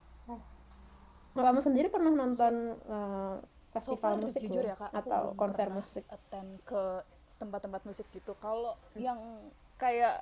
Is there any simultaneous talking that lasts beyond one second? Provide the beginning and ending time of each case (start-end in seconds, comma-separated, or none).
3.9-5.8